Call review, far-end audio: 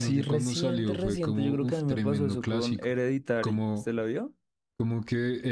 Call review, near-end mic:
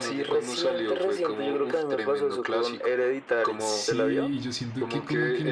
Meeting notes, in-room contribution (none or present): present